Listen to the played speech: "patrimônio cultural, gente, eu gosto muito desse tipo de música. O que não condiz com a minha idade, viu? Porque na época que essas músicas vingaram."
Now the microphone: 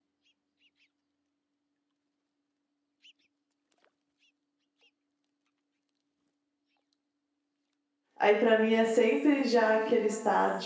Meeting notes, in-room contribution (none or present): present